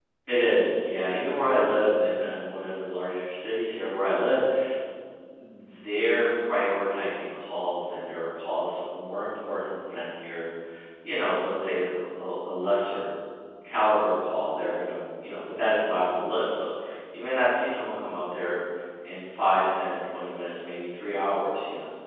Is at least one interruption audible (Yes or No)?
No